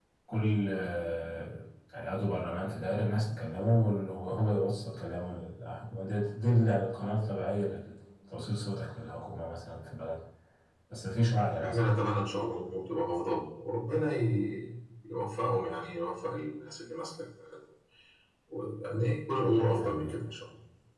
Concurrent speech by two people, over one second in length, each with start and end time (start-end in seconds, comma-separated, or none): none